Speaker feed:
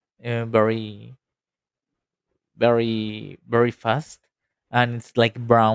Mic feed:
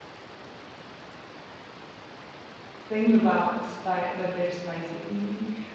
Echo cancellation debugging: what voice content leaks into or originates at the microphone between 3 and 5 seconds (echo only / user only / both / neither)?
user only